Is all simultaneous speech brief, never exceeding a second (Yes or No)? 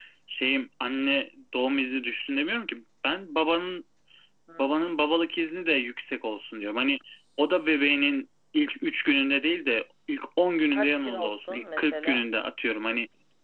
No